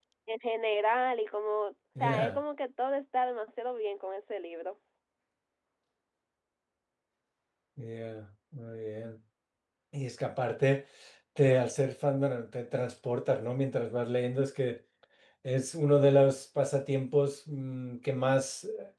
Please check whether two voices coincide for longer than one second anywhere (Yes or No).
No